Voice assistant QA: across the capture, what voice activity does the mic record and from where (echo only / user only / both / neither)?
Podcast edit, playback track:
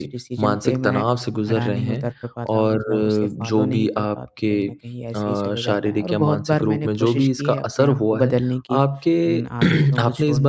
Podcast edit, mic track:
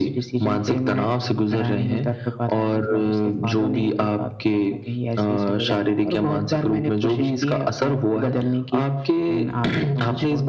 echo only